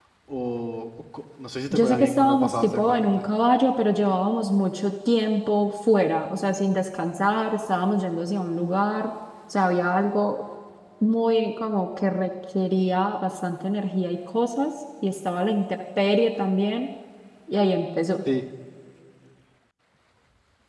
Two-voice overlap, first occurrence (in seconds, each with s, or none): 1.7 s